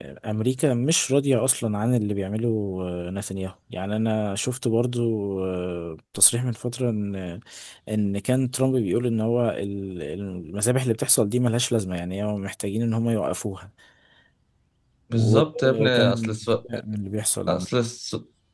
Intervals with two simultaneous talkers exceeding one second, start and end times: 15.2-16.5

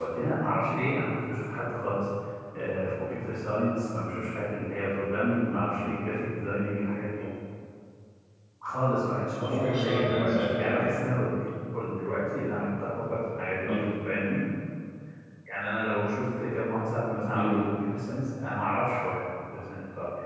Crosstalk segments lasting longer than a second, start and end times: 9.3-11.3

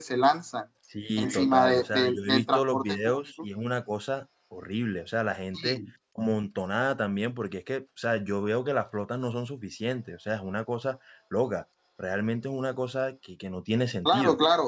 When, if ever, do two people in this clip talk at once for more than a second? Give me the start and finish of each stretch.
1.2-3.2

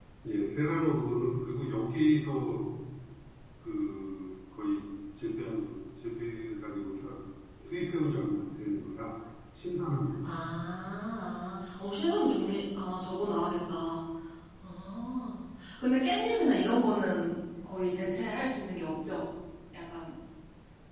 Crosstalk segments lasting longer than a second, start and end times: none

